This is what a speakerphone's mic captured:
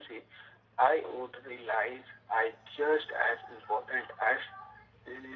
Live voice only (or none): none